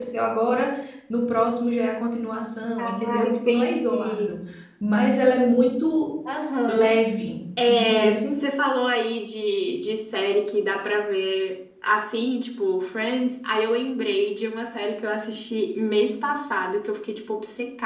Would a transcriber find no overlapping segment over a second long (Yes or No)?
No